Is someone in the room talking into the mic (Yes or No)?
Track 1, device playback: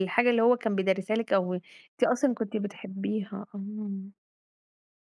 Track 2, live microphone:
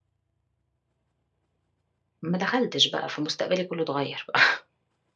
Yes